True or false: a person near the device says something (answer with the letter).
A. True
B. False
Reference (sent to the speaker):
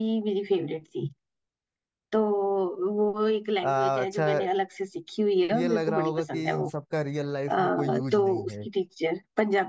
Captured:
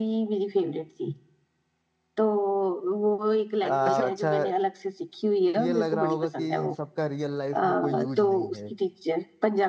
A